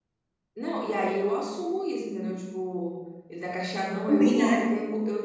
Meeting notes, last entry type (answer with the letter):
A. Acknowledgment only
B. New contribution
A